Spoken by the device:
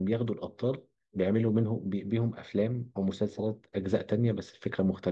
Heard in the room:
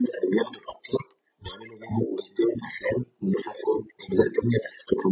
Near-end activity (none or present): none